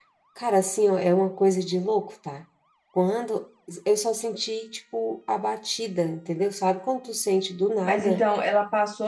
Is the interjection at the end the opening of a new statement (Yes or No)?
Yes